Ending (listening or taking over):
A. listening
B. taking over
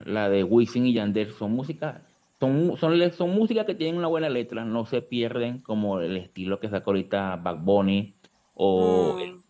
A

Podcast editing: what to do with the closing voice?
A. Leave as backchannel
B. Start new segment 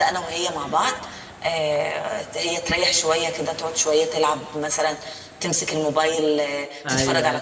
B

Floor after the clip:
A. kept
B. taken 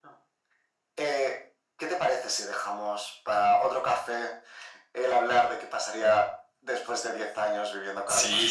B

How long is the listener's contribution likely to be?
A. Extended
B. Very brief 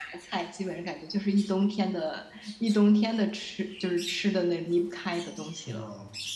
A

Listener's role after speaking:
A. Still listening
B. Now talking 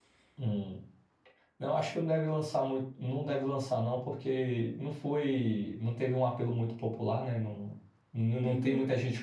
A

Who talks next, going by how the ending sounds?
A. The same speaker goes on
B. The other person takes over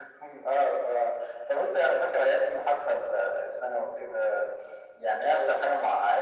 A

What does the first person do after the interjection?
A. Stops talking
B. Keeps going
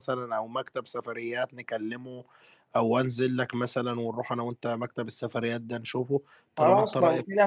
A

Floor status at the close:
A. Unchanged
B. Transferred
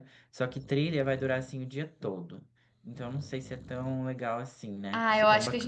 B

